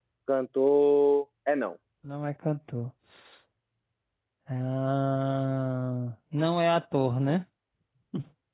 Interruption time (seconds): none

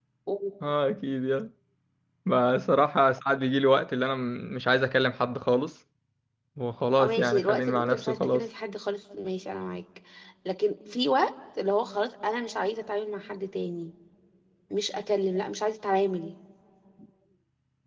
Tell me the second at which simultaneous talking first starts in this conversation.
7.0 s

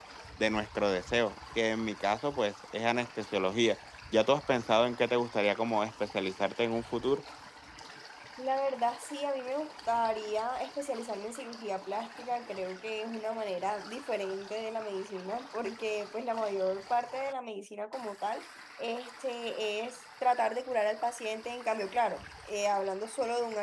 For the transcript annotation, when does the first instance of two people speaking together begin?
none

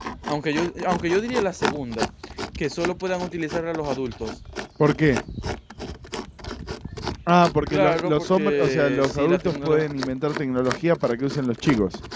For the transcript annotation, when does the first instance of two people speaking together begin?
7.7 s

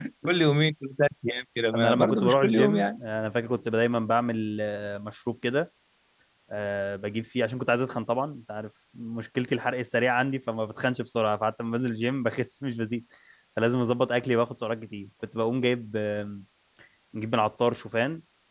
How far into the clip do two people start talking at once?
1.7 s

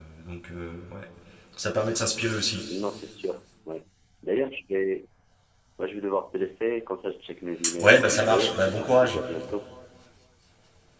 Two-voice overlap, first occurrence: 7.6 s

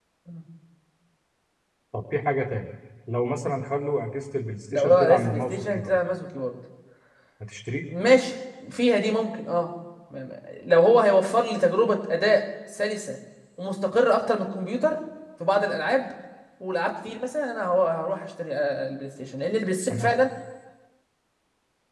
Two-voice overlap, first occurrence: 4.7 s

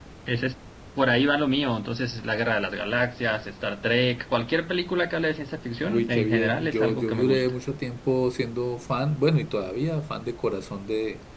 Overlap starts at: 5.8 s

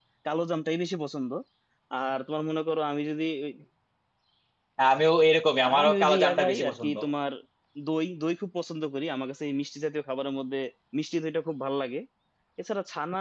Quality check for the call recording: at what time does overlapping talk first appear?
5.6 s

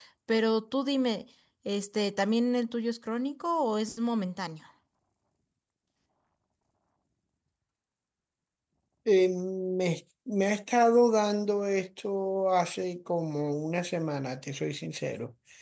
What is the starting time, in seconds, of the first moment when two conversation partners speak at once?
none

